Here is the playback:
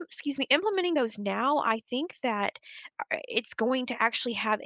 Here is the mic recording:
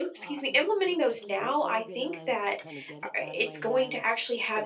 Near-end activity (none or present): present